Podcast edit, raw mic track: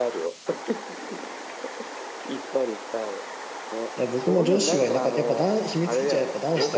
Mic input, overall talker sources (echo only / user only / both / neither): both